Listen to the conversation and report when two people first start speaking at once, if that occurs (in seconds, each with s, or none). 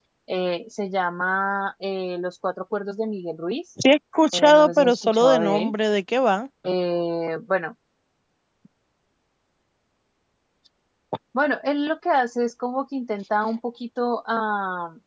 4.3 s